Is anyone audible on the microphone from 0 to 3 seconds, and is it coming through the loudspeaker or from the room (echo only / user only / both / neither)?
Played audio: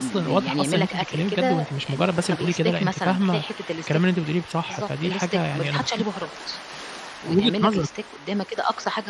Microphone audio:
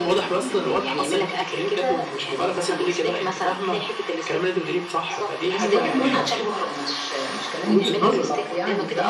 echo only